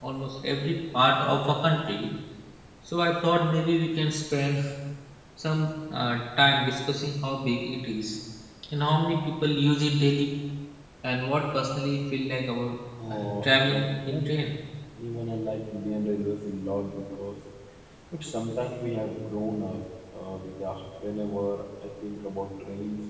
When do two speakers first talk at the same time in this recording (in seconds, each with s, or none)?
13.0 s